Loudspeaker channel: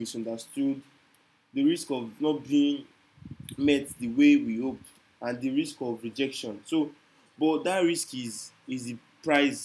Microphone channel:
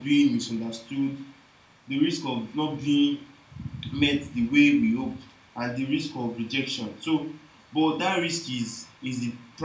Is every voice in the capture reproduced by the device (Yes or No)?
Yes